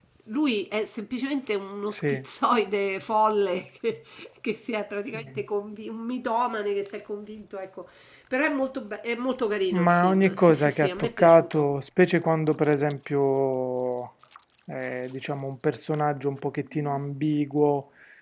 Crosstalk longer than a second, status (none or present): present